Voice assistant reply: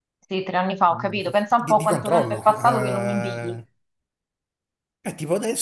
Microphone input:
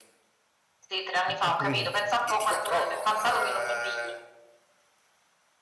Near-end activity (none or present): present